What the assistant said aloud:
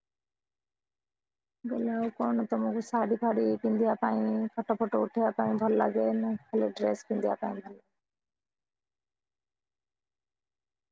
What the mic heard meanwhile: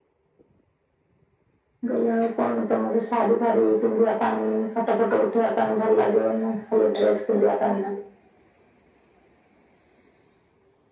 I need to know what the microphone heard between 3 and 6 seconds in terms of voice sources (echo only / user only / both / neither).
echo only